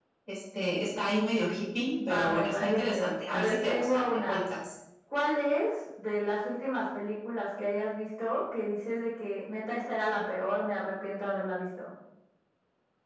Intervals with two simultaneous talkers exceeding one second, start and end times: 2.1-4.4

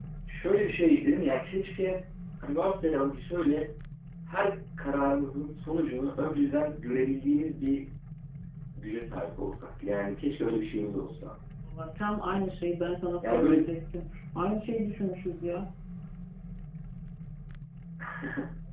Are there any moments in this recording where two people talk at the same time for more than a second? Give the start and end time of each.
none

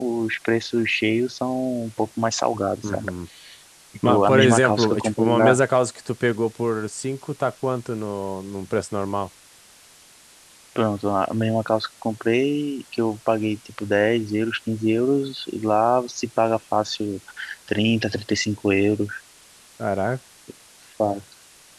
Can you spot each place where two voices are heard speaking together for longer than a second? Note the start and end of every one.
4.1-5.6

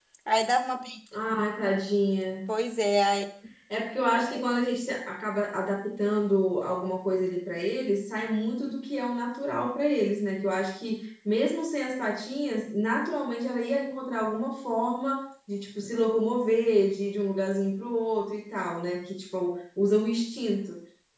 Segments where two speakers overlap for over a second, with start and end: none

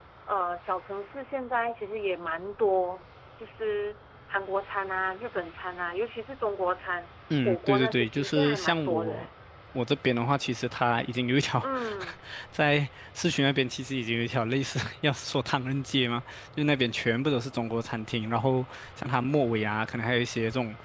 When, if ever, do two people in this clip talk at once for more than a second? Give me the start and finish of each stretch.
7.5-9.3

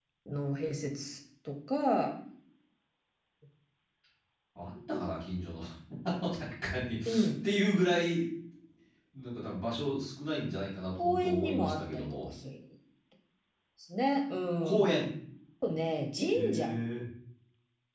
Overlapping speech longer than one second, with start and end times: 11.0-12.3

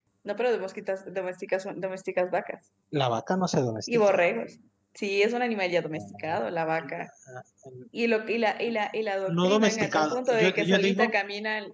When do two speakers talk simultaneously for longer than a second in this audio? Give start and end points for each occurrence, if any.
9.3-11.2

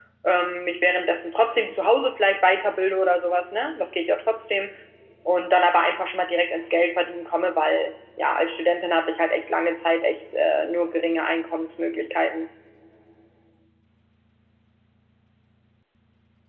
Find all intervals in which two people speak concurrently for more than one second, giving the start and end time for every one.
none

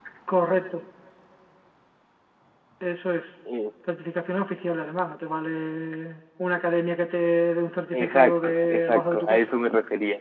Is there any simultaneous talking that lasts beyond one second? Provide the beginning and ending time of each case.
7.9-9.5

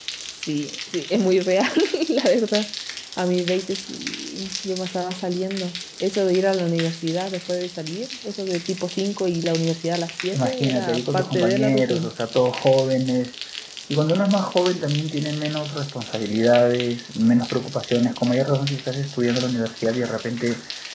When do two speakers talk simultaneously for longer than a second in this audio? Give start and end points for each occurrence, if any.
10.3-12.1

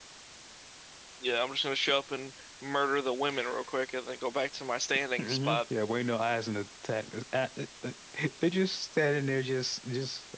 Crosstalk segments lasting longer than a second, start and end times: none

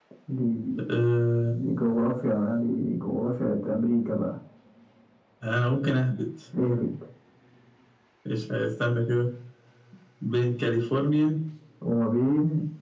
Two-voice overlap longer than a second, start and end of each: none

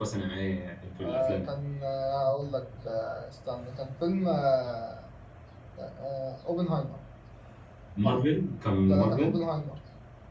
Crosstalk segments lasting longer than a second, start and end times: none

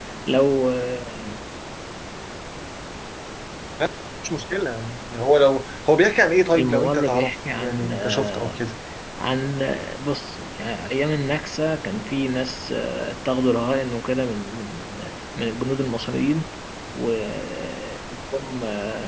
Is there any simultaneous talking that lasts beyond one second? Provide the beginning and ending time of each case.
6.5-8.6

